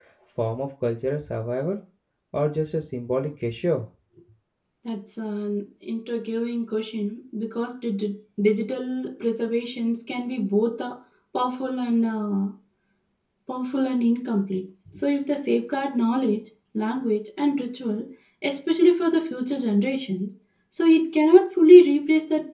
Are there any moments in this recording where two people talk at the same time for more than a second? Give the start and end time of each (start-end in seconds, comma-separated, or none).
none